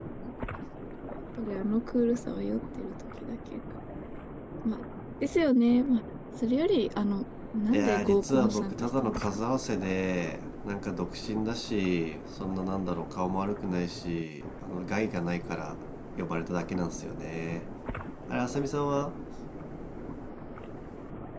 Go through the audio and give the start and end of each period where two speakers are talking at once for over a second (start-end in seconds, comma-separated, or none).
7.7-9.2